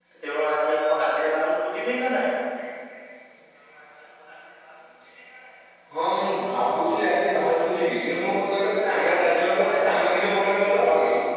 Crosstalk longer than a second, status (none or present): present